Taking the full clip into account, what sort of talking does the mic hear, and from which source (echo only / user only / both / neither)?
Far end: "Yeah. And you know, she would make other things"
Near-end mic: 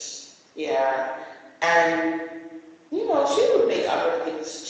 echo only